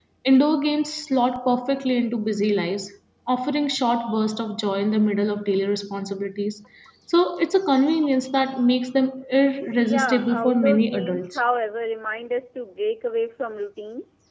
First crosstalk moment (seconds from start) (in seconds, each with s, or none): 9.8 s